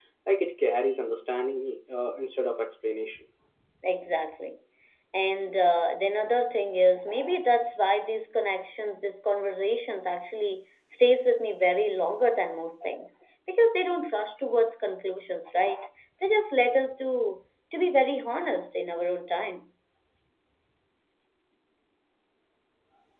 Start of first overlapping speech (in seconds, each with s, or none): none